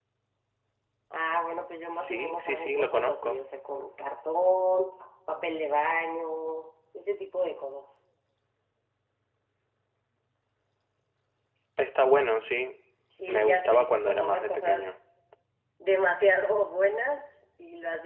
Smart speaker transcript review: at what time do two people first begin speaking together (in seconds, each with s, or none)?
1.9 s